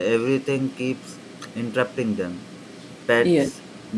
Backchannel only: Yes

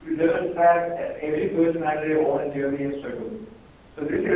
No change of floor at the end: Yes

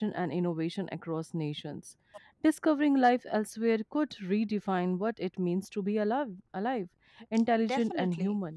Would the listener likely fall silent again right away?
No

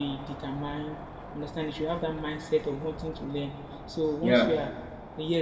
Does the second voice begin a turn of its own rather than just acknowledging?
No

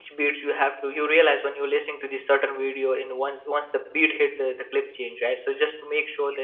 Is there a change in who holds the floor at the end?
No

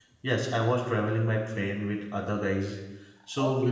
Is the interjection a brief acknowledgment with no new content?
No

